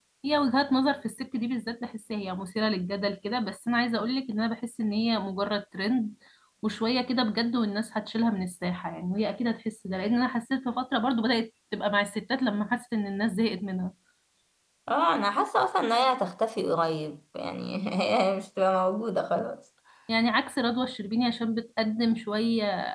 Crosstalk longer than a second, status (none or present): none